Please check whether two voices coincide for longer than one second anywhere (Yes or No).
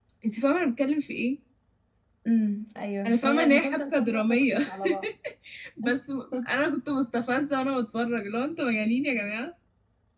Yes